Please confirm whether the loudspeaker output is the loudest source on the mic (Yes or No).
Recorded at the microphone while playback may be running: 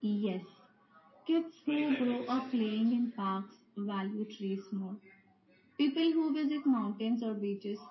Yes